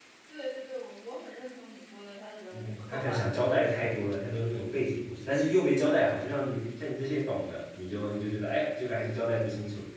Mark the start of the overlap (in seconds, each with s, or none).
2.5 s